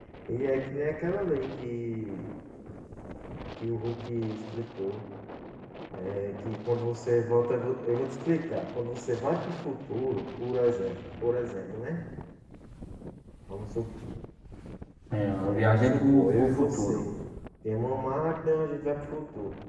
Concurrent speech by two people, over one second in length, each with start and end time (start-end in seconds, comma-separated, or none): 15.4-17.0